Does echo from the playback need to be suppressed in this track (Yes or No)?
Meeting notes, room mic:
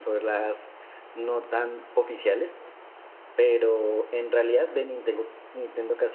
No